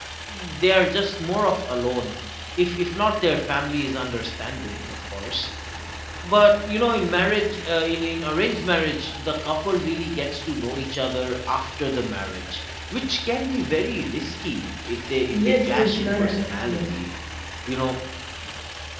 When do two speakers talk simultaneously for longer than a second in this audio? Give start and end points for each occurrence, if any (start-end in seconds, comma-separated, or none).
15.4-17.0